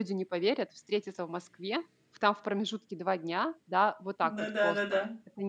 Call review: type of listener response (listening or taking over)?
listening